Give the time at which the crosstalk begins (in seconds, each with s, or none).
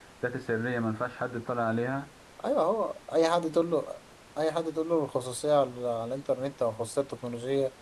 none